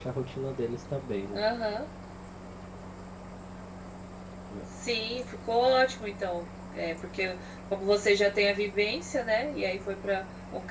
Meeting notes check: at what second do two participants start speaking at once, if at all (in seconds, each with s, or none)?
none